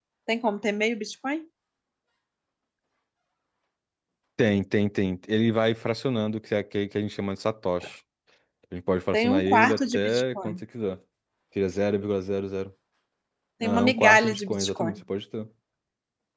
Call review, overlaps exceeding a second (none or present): present